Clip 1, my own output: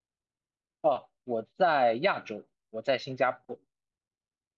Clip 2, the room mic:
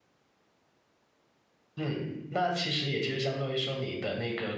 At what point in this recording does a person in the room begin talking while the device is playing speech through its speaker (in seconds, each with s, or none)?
1.8 s